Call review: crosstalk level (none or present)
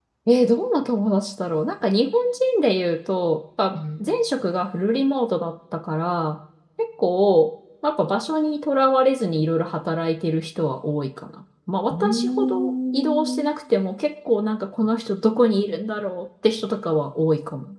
present